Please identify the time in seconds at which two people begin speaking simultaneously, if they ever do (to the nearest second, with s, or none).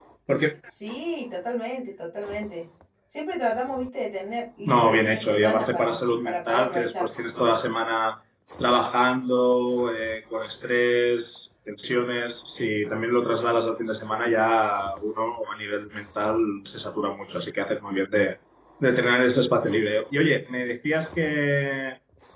5 s